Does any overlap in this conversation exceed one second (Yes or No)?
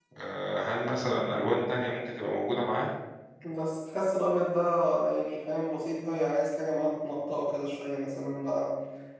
No